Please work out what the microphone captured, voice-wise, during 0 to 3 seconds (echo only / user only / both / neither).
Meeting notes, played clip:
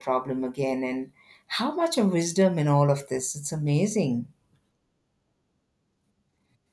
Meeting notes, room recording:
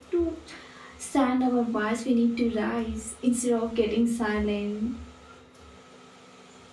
user only